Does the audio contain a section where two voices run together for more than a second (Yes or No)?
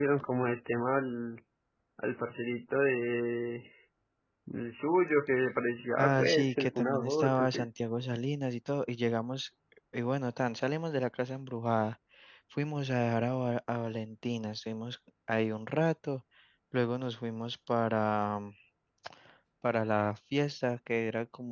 Yes